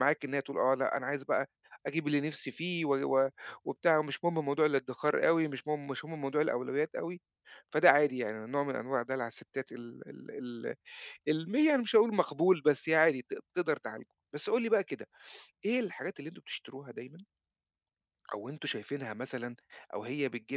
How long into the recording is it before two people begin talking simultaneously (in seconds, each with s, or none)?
none